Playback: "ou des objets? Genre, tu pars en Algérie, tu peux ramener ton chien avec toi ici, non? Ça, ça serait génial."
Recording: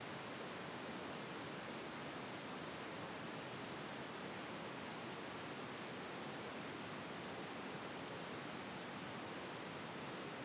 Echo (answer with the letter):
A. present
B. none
B